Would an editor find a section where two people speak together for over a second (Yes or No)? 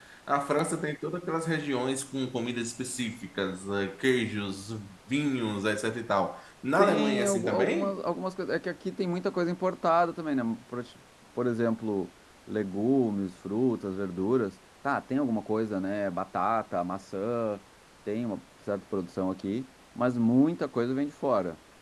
Yes